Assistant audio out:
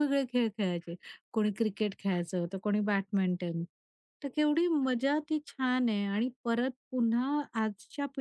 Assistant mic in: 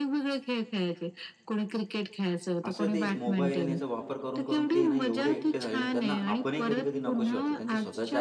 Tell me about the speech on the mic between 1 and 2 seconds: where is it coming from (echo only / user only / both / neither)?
echo only